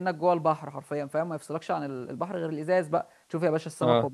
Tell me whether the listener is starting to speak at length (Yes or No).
No